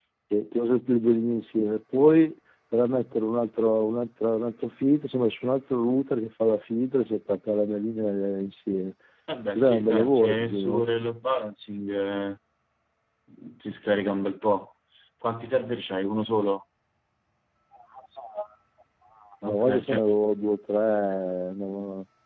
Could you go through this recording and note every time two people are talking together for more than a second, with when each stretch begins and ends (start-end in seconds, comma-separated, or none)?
9.5-10.9